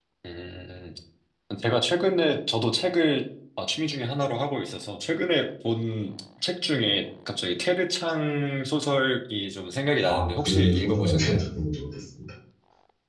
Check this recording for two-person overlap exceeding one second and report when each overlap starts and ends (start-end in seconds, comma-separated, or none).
10.1-11.4